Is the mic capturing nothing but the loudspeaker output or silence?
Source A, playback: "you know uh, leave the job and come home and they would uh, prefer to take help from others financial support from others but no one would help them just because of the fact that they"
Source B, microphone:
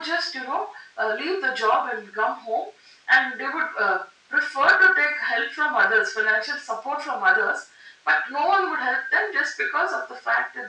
Yes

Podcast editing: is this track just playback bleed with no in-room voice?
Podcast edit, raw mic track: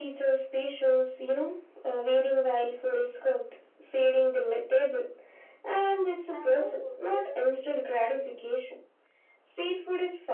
No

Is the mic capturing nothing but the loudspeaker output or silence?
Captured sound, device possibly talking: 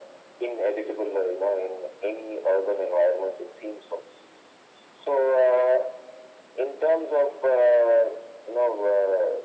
Yes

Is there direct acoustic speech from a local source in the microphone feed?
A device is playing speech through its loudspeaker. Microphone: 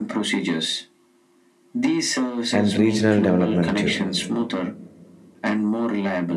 Yes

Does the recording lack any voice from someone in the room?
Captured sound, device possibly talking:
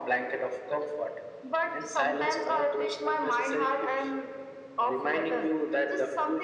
Yes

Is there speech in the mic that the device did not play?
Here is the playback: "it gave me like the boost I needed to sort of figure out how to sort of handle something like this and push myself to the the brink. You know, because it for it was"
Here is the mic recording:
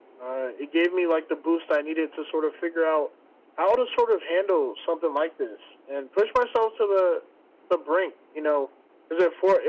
No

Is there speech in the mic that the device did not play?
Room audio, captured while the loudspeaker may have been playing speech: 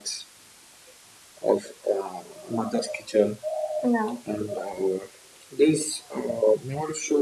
Yes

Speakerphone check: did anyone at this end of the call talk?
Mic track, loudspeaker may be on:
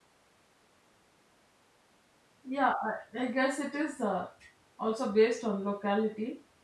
Yes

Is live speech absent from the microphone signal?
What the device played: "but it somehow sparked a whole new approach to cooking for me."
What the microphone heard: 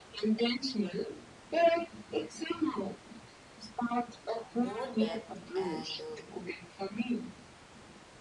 No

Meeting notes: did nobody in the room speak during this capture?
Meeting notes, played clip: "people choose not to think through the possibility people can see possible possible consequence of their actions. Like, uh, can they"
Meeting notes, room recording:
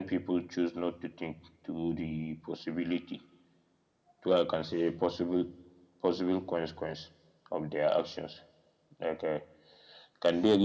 Yes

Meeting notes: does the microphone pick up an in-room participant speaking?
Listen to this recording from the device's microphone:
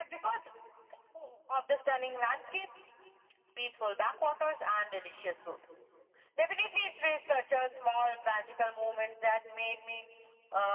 No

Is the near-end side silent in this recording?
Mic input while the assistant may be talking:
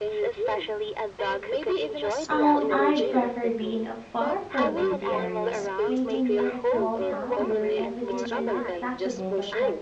No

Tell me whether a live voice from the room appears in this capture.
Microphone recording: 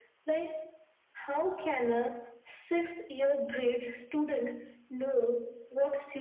No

